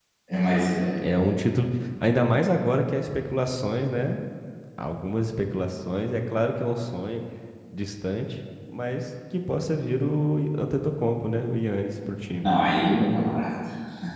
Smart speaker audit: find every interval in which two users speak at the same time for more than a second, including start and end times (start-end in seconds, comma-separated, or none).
none